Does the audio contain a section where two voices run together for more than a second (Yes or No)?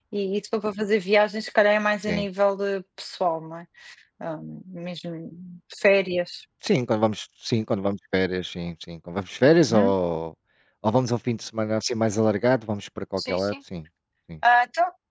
No